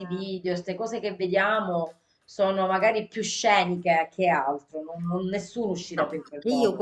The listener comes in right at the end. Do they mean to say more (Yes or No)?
Yes